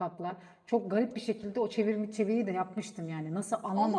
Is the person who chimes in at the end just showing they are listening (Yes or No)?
Yes